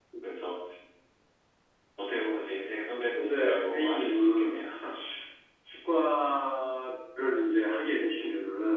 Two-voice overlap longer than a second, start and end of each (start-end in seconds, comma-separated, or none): 3.1-4.6